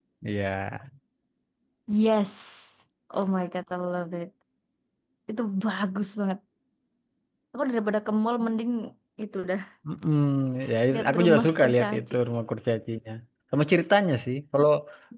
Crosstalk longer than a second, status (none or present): present